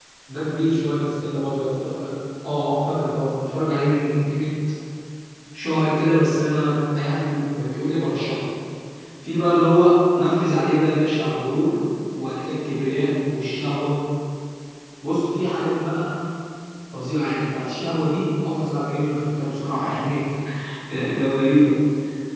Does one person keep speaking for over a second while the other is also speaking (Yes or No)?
No